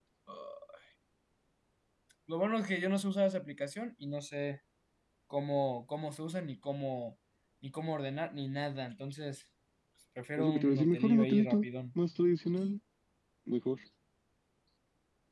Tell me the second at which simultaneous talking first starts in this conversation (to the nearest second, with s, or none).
10 s